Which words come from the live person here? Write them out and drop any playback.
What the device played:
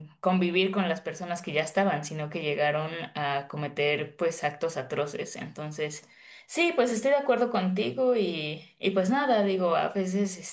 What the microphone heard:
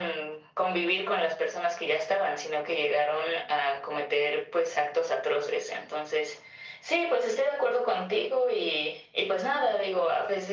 none

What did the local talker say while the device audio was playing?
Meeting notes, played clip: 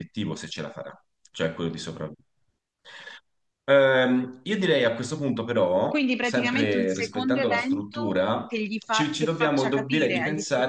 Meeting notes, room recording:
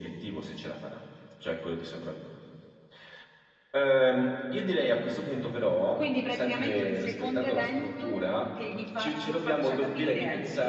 none

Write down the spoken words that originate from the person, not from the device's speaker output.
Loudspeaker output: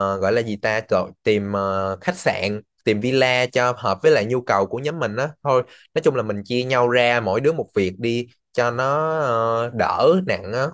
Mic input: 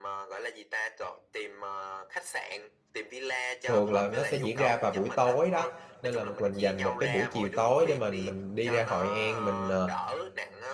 thường là nó sẽ diễn ra vào buổi tối đó nên là mình dành một cái buổi chiều tối để mình mình đi ra Hội An mình ờ,

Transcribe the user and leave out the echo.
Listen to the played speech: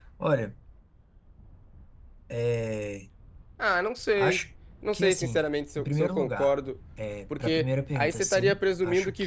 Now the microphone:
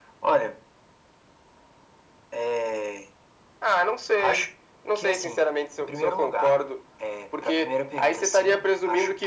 none

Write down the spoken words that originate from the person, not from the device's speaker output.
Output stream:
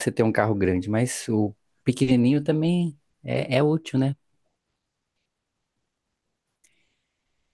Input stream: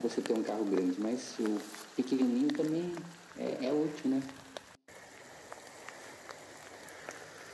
none

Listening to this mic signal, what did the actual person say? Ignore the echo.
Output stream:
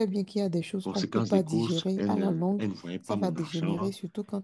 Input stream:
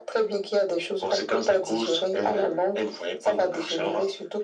none

